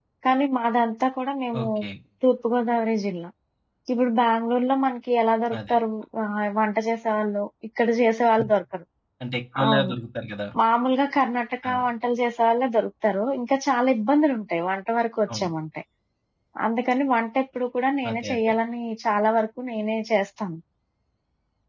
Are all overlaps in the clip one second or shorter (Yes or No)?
Yes